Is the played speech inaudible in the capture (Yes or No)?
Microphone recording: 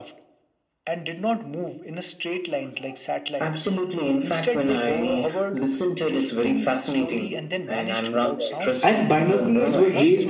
No